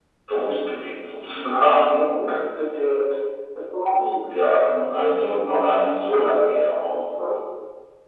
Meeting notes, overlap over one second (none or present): none